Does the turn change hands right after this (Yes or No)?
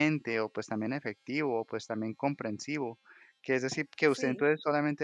No